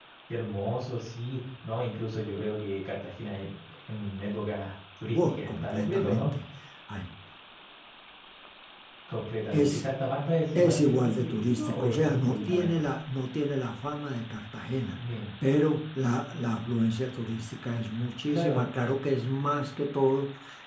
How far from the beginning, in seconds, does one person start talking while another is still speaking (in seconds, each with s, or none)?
5.1 s